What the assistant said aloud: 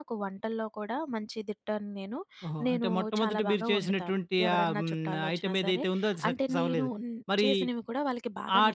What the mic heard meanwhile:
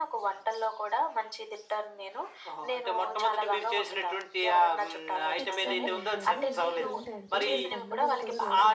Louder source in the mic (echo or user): echo